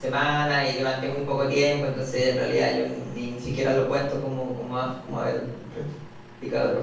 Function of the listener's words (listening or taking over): taking over